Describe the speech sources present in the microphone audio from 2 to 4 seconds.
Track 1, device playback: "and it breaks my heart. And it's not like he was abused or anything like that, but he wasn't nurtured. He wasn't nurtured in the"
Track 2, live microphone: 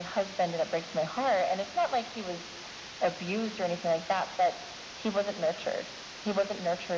echo only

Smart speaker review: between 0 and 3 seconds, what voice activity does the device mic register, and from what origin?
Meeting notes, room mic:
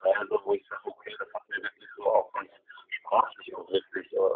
echo only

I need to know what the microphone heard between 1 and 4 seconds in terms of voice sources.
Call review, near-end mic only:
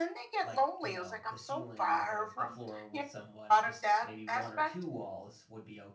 both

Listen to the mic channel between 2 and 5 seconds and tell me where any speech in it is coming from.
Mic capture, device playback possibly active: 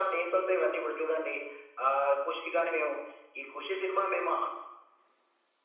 echo only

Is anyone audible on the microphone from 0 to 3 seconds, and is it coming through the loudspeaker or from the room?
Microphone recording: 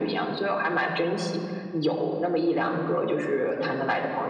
echo only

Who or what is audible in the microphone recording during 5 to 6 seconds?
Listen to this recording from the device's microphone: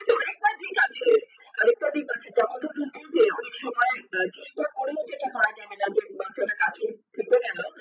echo only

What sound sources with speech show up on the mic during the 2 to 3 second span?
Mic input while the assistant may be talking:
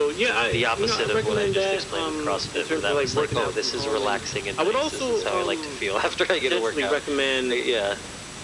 echo only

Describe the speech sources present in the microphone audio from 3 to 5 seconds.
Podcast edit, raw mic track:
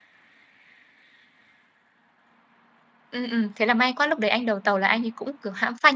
user only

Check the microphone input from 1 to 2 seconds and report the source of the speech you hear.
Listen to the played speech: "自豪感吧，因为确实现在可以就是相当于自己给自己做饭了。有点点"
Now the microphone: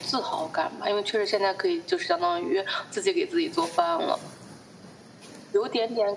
echo only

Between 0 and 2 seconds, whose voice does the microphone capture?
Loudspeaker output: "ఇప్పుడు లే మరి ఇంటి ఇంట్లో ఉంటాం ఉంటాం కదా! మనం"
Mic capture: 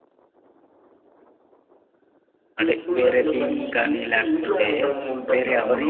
neither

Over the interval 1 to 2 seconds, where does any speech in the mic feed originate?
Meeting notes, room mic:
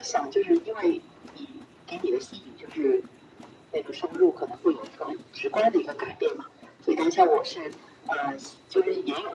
echo only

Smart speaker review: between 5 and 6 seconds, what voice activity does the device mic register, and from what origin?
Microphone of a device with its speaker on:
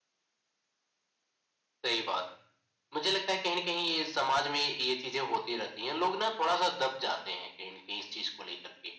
echo only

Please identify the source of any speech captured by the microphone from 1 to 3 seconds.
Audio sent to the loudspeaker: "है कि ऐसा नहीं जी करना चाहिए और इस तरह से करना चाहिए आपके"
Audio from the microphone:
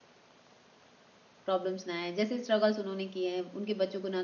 user only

